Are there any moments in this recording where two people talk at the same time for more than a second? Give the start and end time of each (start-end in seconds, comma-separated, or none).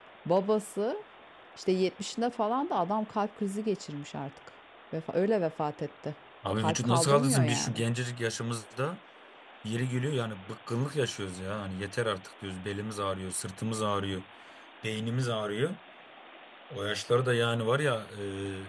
6.6-7.8